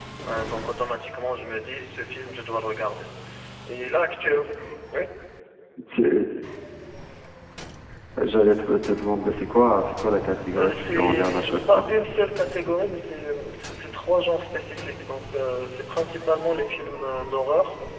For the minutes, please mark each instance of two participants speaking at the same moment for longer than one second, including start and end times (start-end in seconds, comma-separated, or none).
10.6-11.8